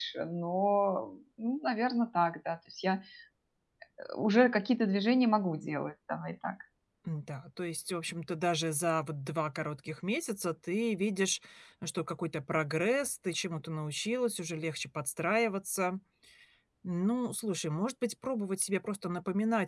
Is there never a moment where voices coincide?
Yes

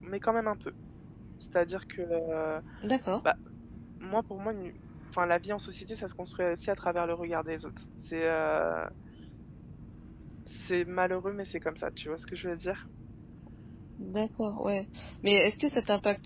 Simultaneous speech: No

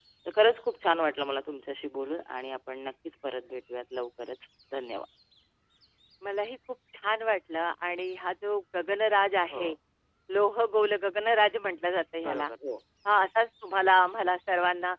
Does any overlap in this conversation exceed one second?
No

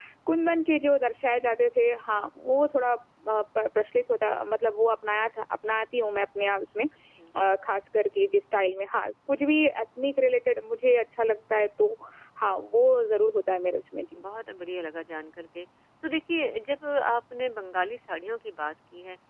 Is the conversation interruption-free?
Yes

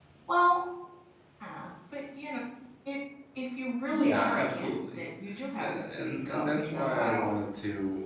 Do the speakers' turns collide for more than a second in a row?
Yes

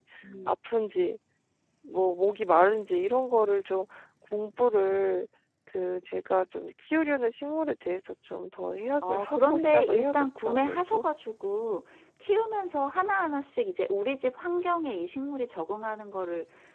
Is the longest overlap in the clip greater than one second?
Yes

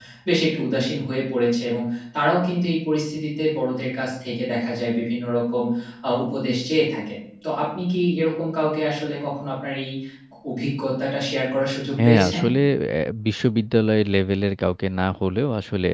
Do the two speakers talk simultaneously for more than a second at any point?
No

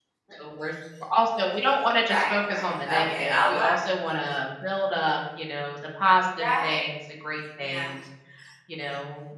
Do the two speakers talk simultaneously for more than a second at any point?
Yes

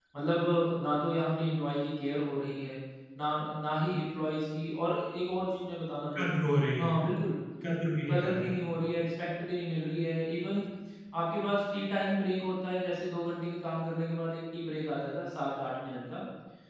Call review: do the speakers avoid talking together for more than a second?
Yes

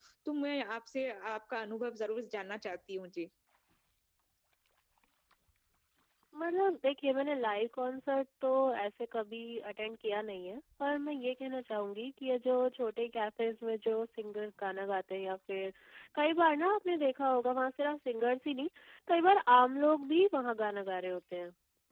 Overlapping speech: No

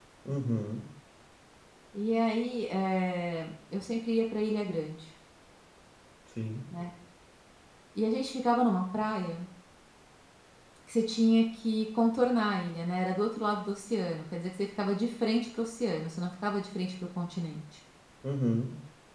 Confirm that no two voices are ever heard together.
Yes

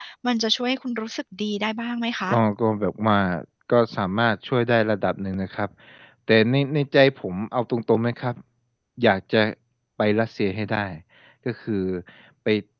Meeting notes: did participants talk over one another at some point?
No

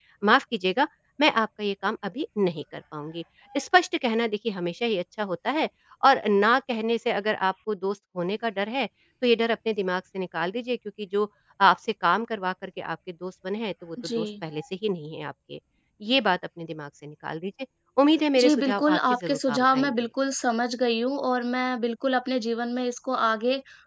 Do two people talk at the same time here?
Yes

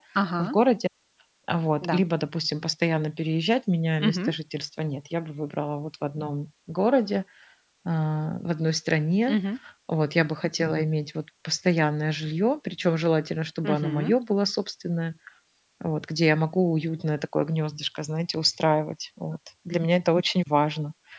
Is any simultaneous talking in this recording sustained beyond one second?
No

